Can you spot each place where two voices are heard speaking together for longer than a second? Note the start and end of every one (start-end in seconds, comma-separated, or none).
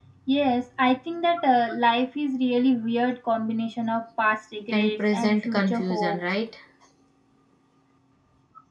4.7-6.2